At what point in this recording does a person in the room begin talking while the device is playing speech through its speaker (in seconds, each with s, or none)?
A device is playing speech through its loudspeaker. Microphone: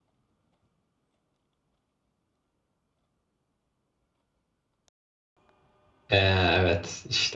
6.1 s